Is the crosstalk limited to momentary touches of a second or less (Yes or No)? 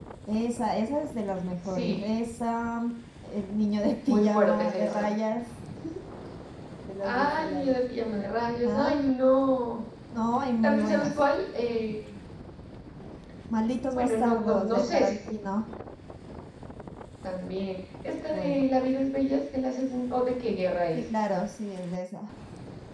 No